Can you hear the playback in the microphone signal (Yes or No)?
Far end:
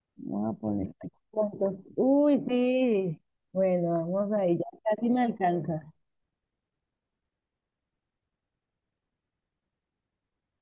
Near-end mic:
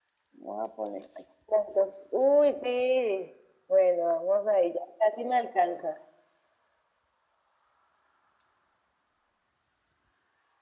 Yes